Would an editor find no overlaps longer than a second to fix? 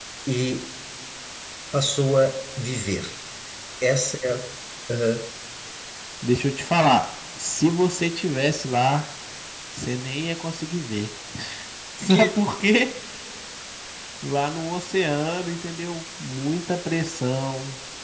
Yes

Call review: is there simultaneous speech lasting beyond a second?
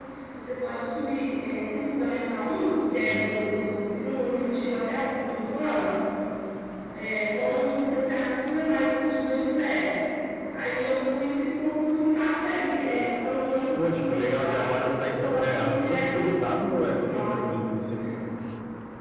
Yes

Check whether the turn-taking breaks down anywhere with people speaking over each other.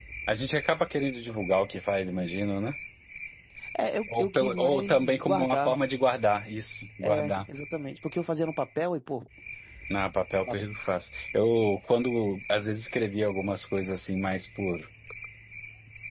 Yes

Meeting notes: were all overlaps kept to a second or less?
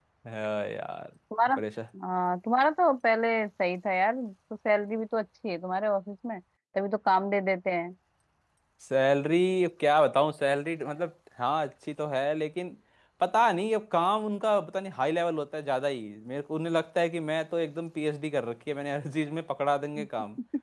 Yes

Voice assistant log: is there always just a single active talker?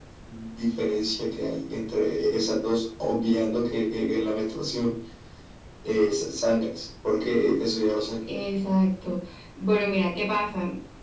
Yes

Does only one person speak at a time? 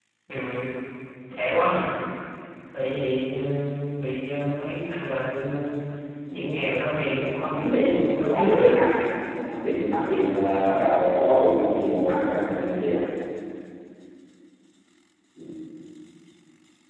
No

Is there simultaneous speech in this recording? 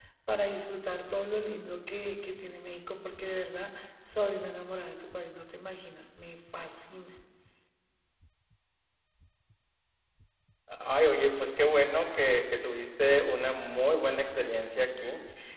No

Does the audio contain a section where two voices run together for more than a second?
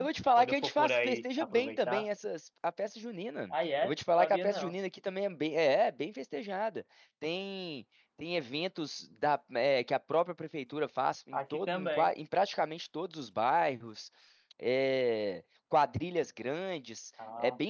Yes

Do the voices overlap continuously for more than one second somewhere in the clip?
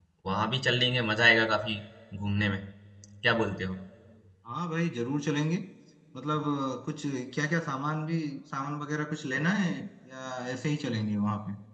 No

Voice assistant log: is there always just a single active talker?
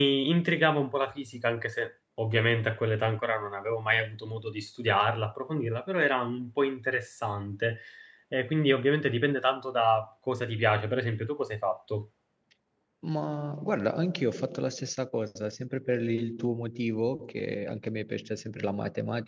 Yes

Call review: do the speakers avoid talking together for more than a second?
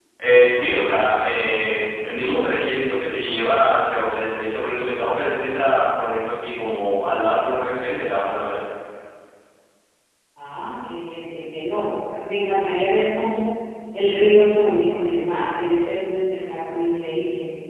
Yes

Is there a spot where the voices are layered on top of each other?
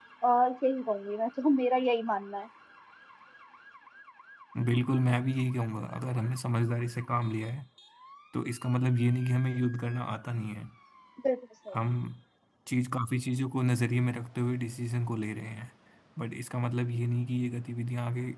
No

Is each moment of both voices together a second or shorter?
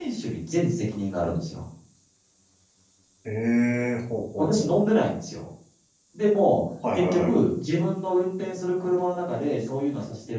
Yes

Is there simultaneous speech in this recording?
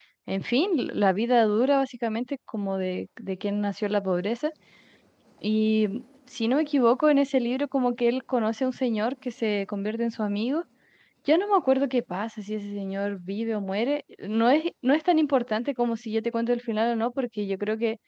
No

